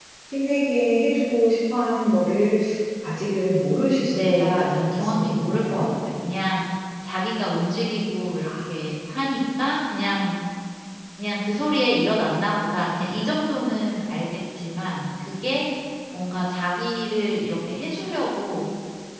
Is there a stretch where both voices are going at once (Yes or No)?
Yes